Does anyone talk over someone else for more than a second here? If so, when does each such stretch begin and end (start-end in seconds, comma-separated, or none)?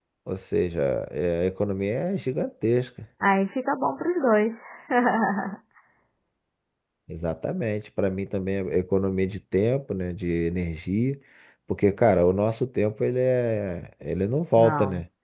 none